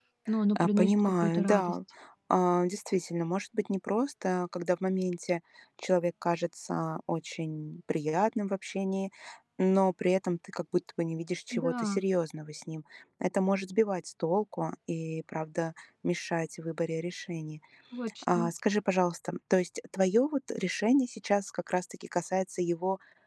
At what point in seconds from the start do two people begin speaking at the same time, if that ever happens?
0.6 s

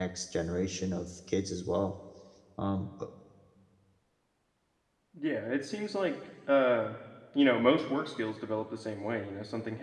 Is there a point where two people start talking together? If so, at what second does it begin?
none

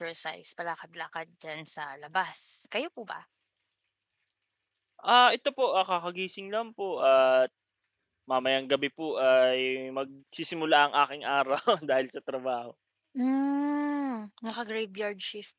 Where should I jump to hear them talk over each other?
none

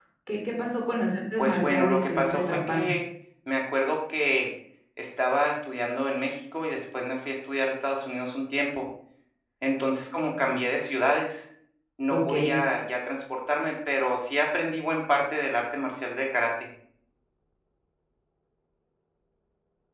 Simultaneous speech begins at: 1.4 s

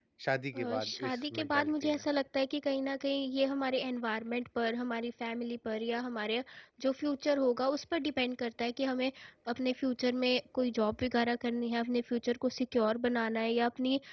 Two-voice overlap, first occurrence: 0.6 s

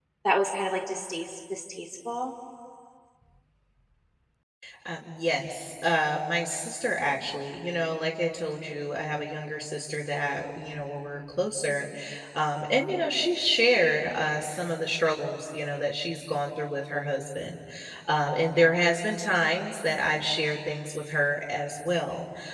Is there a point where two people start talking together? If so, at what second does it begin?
none

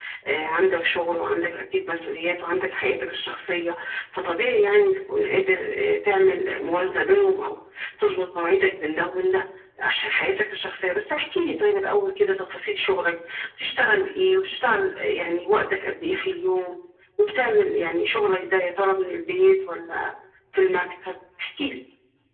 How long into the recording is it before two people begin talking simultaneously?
none

